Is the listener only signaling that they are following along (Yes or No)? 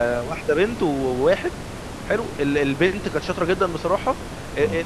Yes